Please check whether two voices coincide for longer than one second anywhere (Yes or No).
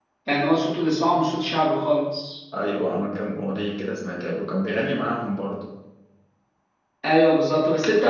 No